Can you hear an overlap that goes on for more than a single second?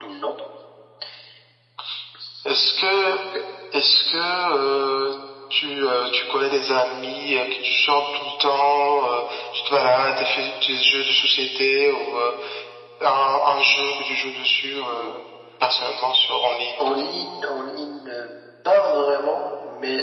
No

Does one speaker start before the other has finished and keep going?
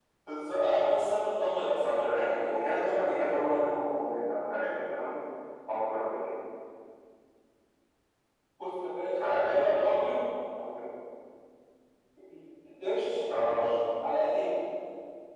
Yes, from 1.8 s

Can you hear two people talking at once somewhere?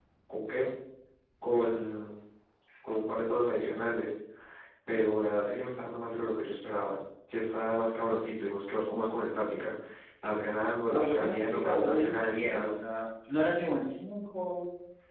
Yes, from 10.9 s

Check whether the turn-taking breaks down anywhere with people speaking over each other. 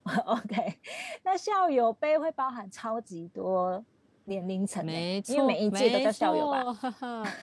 Yes, from 4.8 s

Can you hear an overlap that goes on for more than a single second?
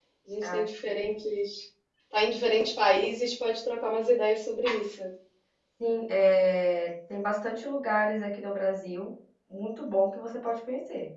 No

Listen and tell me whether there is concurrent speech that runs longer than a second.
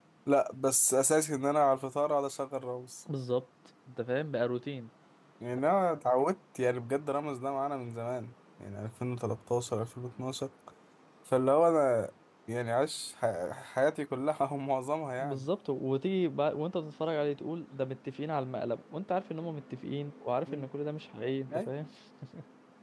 No

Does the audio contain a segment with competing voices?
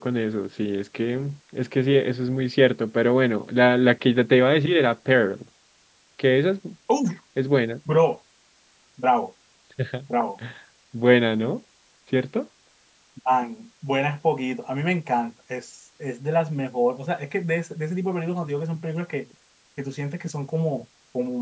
No

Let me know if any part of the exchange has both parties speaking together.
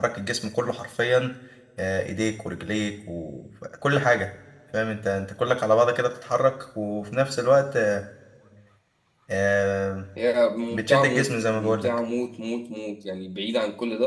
Yes, from 10.7 s

